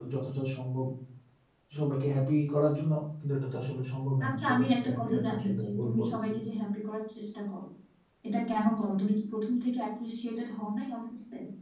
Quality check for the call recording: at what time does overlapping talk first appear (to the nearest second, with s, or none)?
4 s